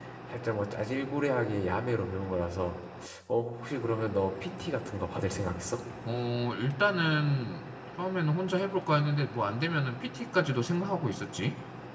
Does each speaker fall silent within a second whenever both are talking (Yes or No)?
Yes